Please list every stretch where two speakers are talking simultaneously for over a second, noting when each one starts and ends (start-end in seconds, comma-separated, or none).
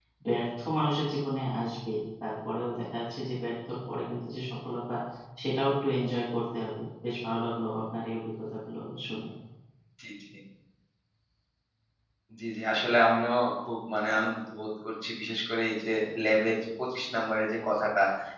none